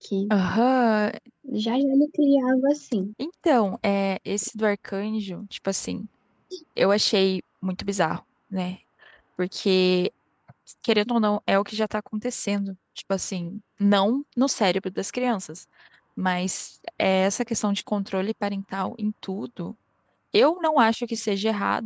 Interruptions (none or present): none